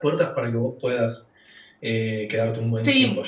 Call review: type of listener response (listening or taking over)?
taking over